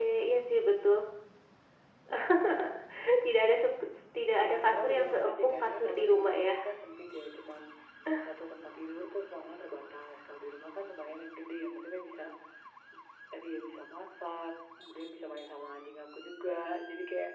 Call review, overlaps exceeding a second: present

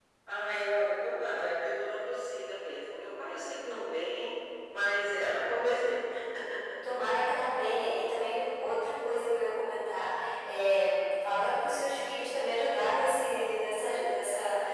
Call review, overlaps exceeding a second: none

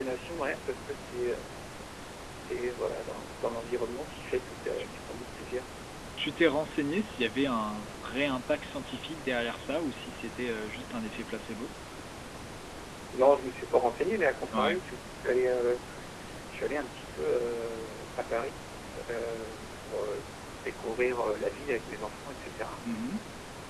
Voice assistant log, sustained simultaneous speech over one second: none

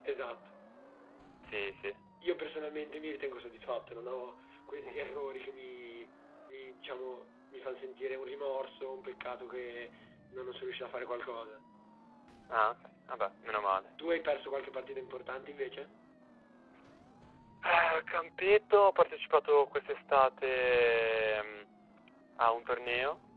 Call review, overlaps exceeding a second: none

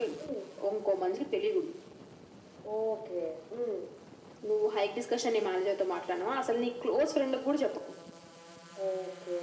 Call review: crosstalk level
none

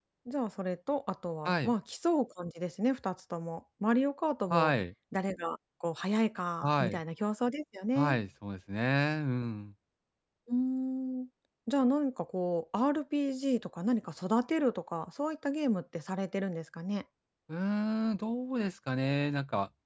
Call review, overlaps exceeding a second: none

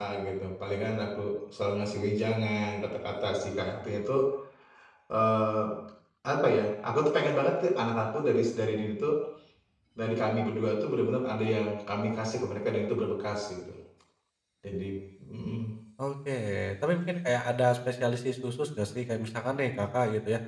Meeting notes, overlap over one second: none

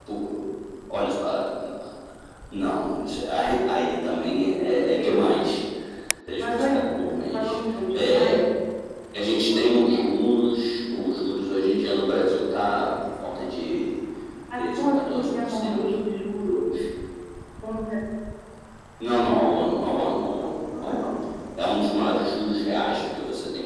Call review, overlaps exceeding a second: present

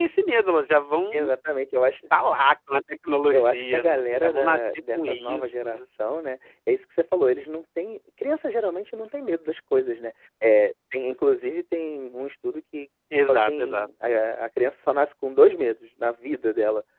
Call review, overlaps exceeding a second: present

